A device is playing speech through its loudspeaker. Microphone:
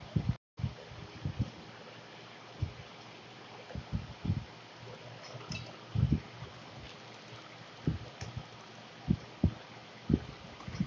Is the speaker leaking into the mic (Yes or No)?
No